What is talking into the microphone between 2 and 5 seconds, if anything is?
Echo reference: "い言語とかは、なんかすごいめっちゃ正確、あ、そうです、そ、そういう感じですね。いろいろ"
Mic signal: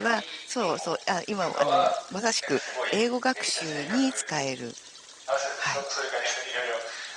both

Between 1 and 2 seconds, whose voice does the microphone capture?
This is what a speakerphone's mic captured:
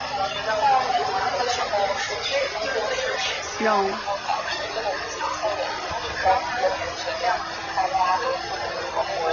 echo only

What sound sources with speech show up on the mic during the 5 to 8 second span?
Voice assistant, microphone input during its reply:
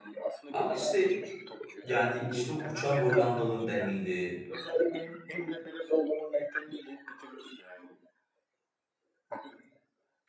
echo only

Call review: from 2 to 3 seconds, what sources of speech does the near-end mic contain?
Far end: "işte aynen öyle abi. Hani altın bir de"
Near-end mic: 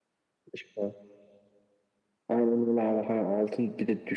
echo only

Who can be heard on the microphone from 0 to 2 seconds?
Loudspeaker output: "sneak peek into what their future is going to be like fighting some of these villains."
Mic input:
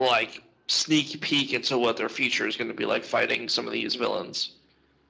echo only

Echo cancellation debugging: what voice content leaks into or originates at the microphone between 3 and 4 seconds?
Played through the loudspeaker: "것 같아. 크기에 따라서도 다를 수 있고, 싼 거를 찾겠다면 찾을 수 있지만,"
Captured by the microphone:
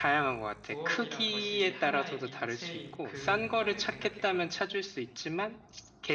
both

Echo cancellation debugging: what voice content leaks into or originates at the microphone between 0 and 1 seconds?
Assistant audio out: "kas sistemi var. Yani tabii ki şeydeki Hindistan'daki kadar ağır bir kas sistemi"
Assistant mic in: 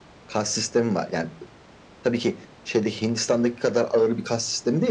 echo only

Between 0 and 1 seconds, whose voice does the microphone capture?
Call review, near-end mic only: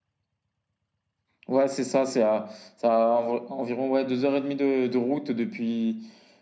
neither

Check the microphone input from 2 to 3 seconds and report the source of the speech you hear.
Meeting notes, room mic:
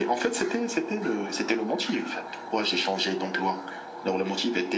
echo only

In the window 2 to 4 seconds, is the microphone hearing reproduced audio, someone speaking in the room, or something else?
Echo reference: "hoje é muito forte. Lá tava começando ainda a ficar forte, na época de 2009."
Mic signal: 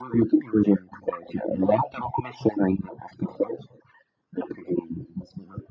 echo only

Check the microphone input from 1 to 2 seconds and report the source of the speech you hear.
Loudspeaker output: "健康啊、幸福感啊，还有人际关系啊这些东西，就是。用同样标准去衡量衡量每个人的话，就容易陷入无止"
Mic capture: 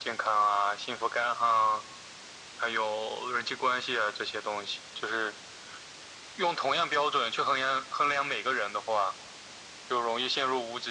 echo only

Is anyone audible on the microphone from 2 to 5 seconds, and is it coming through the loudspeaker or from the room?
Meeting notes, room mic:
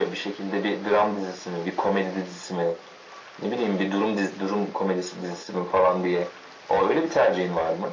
echo only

